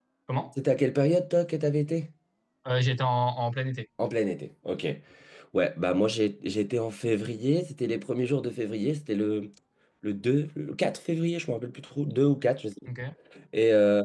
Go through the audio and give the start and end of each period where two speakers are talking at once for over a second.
none

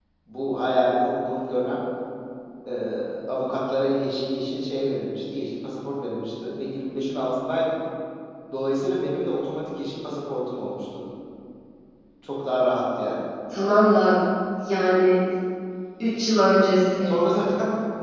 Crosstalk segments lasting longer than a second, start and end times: none

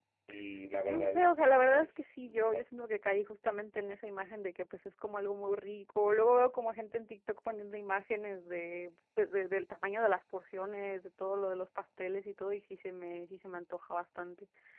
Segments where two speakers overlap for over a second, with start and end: 0.8-2.6

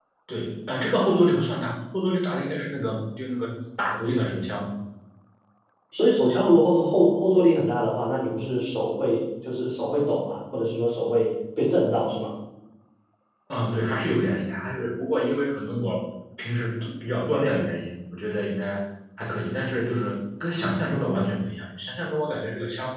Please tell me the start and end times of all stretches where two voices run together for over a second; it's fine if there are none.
none

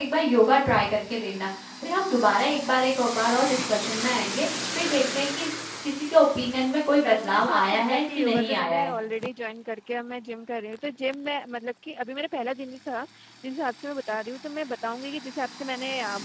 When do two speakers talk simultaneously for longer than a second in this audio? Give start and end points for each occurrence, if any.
7.0-8.9

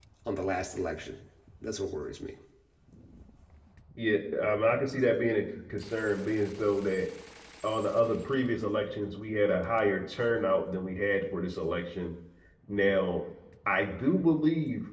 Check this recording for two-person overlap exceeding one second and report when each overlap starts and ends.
none

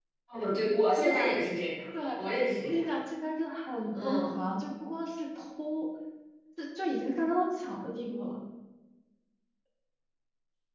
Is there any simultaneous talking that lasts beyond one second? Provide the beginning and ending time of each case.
none

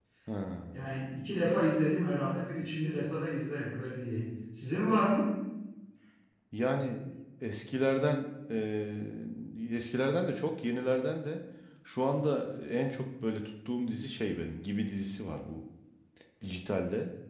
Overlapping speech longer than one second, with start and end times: none

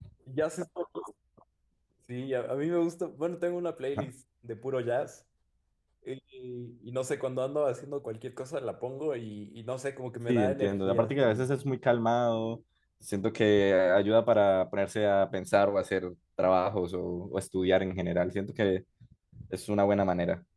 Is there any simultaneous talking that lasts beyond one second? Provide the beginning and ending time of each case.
10.3-11.5

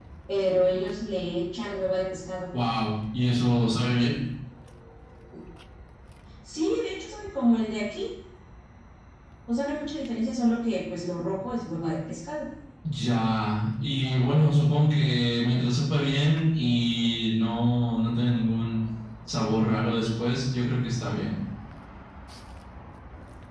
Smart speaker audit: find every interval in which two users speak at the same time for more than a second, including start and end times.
none

